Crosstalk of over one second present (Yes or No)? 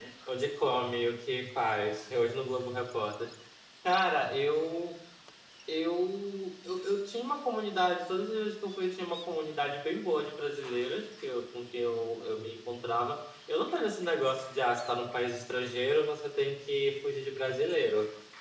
No